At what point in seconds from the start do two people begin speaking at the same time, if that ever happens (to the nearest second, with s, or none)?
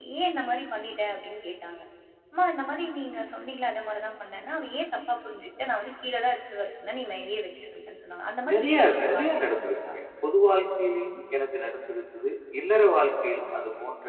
8 s